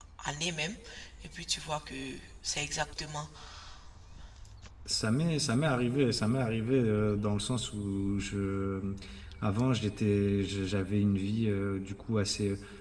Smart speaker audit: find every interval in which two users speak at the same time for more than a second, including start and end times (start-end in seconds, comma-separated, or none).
none